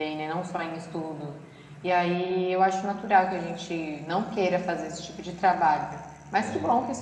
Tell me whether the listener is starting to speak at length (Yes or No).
No